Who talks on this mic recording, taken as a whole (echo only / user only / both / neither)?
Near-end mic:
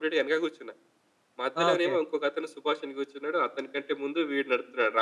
both